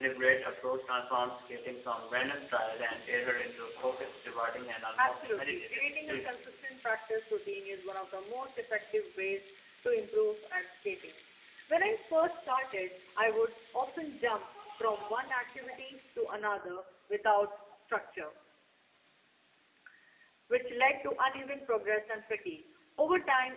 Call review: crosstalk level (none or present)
present